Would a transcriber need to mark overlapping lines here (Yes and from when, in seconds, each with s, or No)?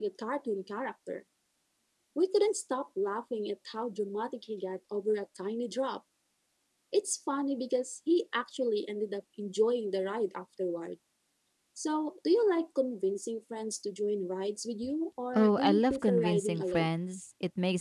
Yes, from 15.3 s